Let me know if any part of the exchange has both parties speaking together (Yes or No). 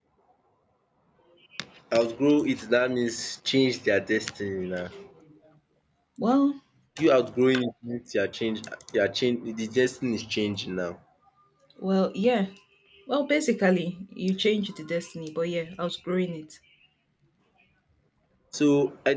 No